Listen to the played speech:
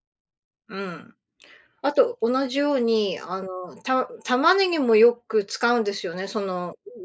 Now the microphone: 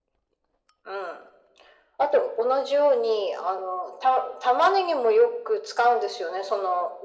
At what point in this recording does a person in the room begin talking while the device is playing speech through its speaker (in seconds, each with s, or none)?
none